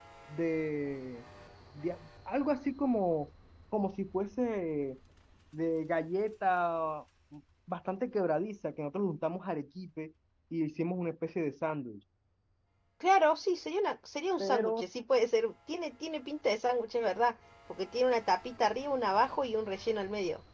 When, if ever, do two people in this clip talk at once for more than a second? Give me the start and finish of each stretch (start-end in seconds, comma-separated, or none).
none